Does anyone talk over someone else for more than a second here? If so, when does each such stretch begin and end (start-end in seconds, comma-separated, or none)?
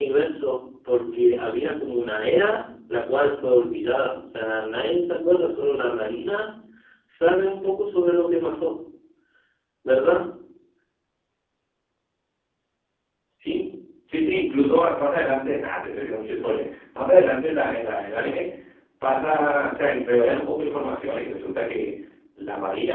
none